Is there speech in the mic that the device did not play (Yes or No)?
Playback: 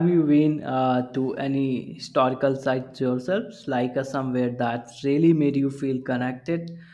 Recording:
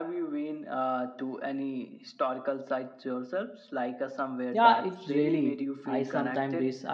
Yes